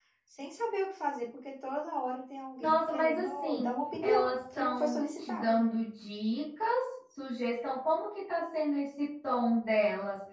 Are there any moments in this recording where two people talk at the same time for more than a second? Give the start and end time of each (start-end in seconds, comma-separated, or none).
2.6-5.6